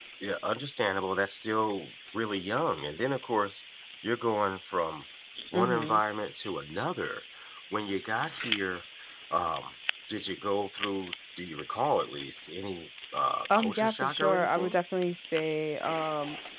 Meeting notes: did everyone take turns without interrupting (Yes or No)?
No